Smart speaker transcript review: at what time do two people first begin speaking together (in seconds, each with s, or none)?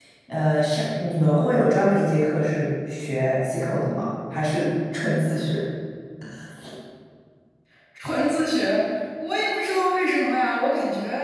none